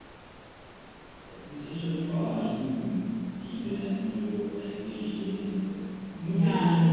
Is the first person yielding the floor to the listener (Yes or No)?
No